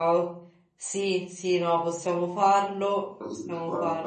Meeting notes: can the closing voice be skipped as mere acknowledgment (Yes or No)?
No